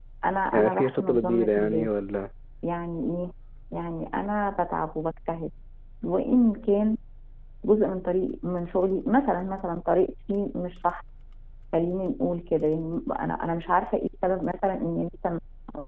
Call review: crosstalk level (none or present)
present